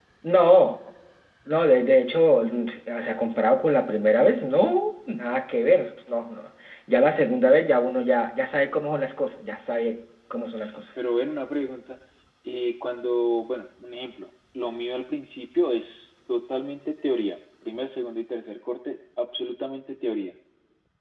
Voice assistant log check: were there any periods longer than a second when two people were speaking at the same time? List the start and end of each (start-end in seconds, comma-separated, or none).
none